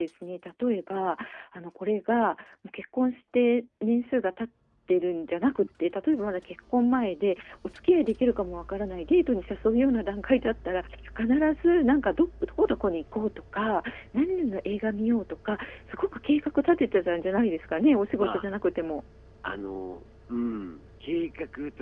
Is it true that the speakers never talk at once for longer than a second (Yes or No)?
Yes